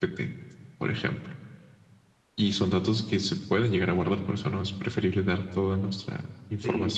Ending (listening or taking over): taking over